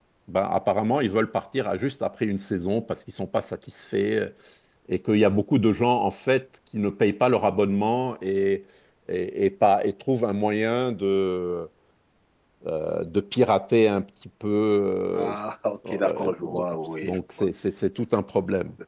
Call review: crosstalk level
present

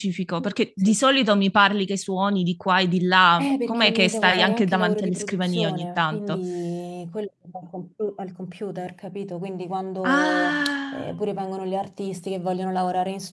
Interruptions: present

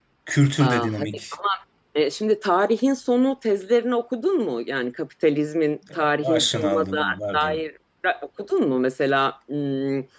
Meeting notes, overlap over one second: present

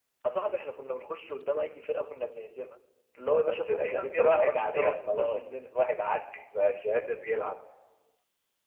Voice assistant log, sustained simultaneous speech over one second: present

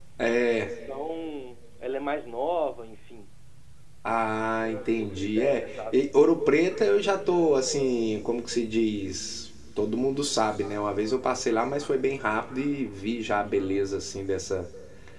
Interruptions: present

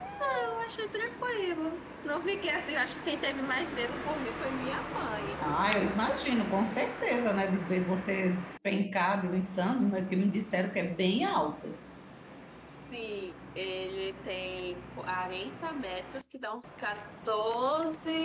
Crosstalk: none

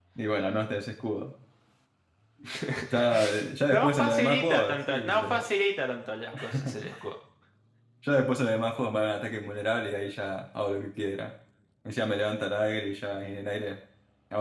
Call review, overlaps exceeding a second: present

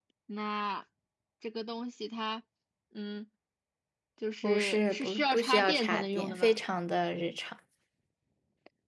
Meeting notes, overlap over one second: present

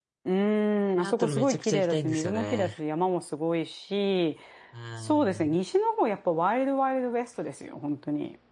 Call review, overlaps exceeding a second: present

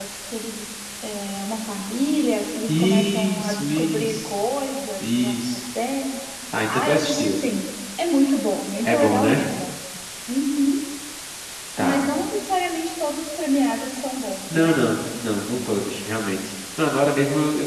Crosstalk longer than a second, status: present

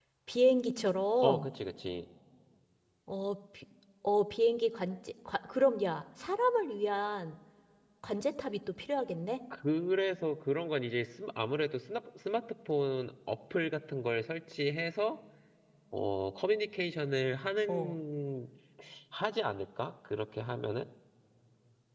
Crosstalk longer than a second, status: none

